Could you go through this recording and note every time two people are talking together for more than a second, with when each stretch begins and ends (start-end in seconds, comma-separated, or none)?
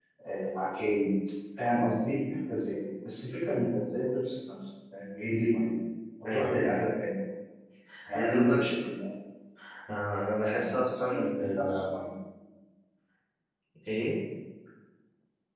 10.4-11.9